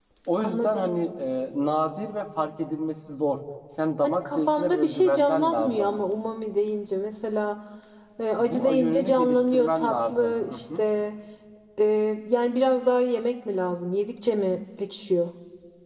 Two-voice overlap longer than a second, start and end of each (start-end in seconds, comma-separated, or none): 4.0-5.9, 8.4-10.8